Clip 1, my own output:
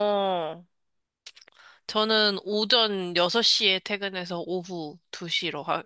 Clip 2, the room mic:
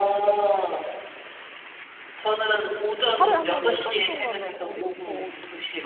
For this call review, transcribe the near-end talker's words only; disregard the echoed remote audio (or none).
하루에 한 번 순간이동 가면 어디, 뭐,